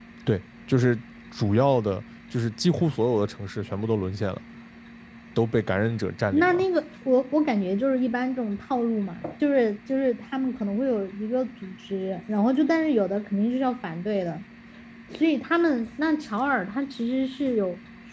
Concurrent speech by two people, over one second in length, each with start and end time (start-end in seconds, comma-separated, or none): none